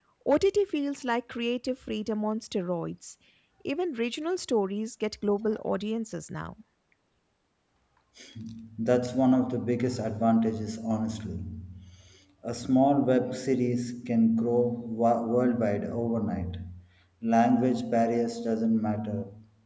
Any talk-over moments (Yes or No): No